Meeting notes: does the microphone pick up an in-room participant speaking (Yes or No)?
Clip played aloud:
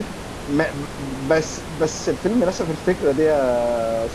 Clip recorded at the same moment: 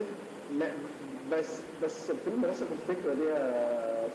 No